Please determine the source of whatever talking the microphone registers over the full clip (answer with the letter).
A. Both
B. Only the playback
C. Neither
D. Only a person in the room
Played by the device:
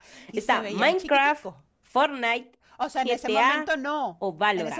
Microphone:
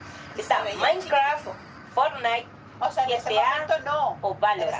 B